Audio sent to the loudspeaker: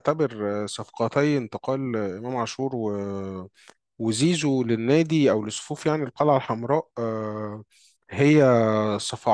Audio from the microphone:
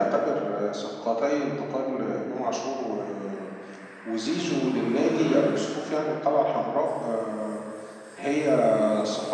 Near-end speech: none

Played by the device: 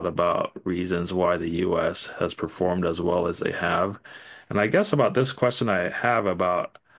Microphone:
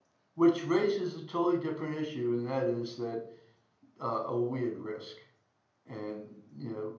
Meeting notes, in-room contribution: present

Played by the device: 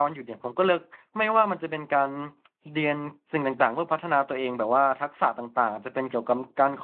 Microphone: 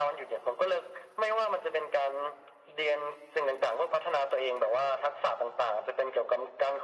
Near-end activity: none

